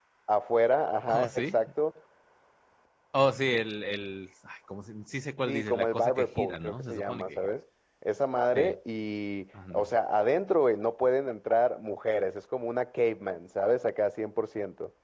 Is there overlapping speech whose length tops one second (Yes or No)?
Yes